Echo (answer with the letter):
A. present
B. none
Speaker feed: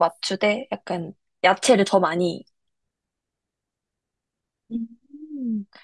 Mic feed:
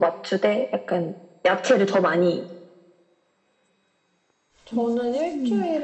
A